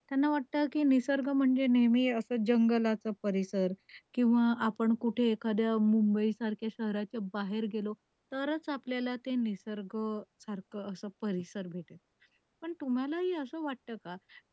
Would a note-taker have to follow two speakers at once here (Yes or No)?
No